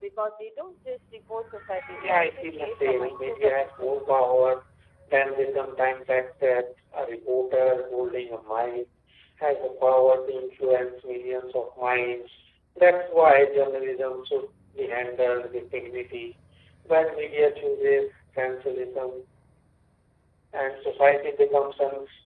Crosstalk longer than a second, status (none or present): present